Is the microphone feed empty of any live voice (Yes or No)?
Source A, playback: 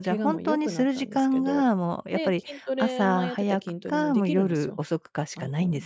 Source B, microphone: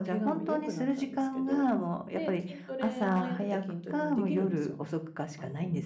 Yes